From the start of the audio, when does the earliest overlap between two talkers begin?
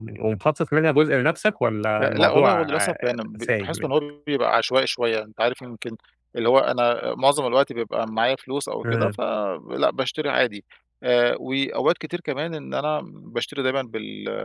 2.0 s

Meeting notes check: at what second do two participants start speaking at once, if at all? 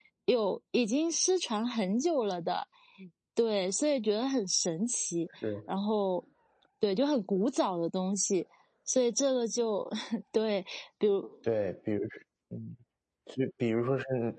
none

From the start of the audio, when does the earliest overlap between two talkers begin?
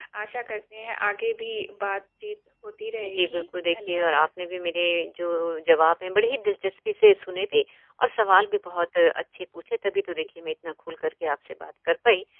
3.0 s

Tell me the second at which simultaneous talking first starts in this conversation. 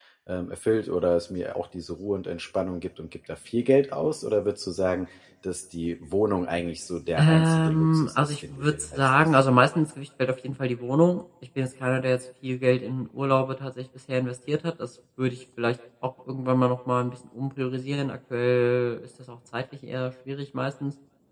7.2 s

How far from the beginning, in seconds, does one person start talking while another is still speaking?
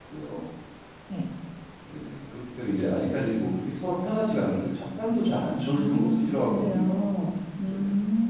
5.7 s

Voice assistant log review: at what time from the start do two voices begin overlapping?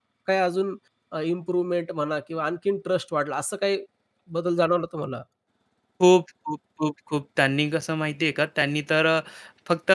none

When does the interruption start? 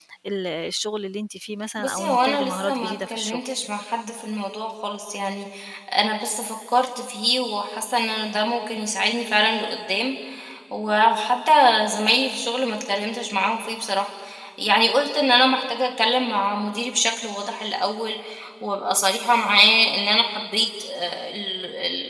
1.8 s

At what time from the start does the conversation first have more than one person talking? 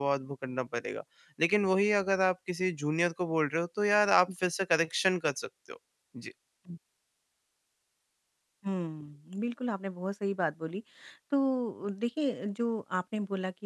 none

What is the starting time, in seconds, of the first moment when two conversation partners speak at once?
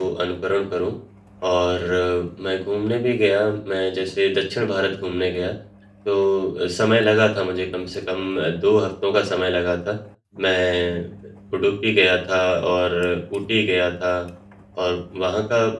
none

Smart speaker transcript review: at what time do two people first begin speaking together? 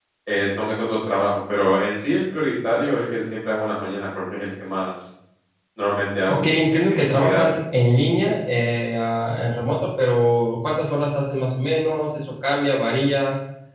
6.3 s

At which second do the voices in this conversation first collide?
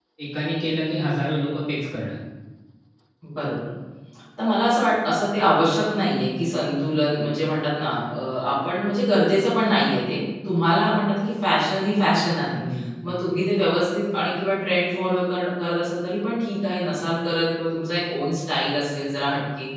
none

